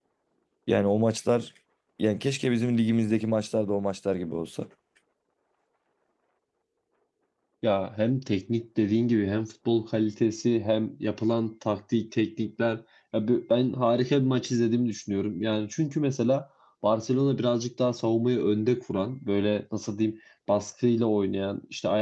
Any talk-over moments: No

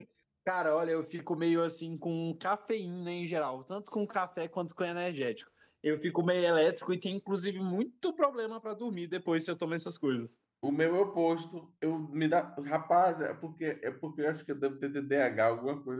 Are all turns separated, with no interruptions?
Yes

